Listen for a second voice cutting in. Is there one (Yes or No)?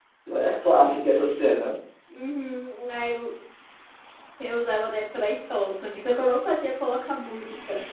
No